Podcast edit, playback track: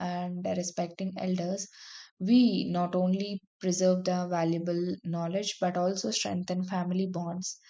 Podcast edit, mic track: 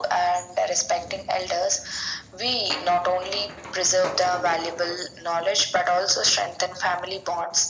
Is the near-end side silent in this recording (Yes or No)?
Yes